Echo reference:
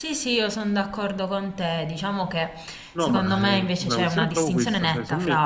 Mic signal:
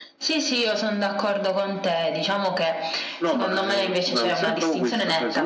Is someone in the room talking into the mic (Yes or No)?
No